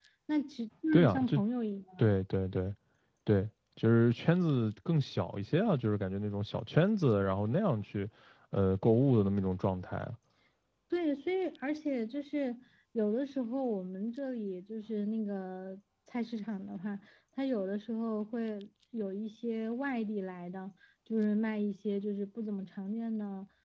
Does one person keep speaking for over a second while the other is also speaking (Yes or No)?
No